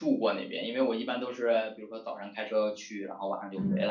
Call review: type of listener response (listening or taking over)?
taking over